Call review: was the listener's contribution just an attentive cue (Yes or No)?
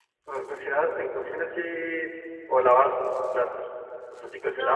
No